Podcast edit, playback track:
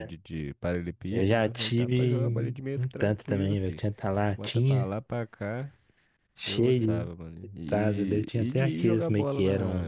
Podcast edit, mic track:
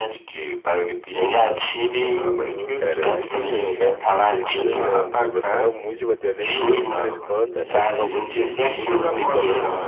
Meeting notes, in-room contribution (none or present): present